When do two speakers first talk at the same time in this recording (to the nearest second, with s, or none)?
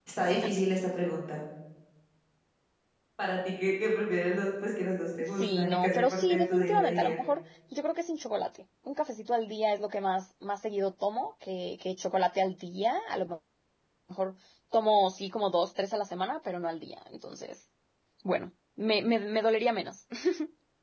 5 s